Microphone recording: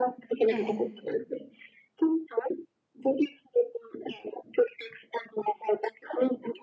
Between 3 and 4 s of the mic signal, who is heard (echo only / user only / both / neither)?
echo only